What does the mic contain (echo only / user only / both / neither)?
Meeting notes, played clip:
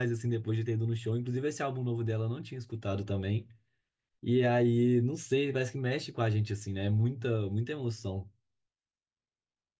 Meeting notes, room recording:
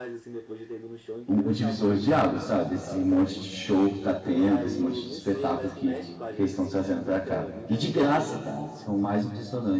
both